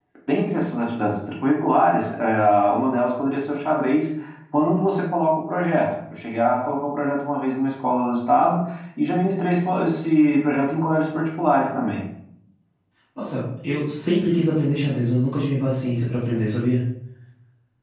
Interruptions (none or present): none